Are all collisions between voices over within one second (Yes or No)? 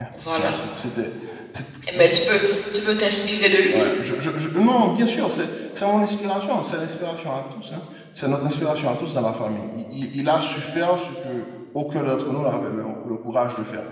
Yes